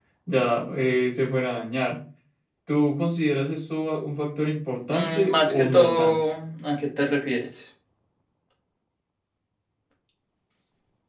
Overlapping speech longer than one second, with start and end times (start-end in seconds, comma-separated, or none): 4.9-6.2